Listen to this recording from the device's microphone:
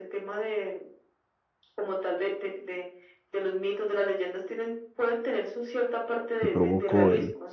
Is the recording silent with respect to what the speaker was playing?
No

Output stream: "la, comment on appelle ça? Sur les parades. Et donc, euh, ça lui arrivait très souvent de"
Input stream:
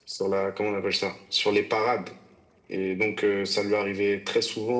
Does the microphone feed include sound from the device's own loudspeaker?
Yes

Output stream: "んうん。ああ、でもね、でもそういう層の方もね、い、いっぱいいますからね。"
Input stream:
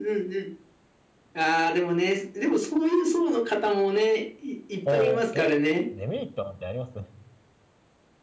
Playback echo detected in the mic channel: Yes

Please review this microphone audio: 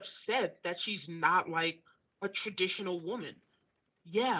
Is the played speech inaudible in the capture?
No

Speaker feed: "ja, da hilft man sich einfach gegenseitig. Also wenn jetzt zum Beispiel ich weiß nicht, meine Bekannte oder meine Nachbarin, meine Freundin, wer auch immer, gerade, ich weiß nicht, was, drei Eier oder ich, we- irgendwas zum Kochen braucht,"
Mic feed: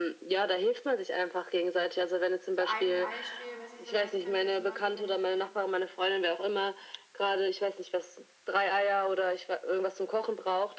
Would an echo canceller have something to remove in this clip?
Yes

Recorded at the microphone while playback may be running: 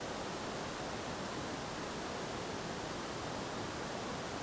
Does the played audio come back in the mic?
No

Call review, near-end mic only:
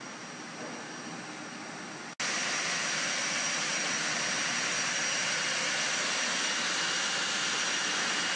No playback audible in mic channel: Yes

